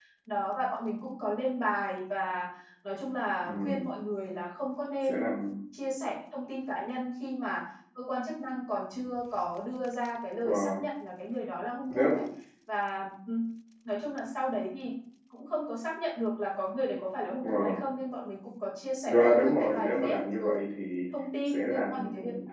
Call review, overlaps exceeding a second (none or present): present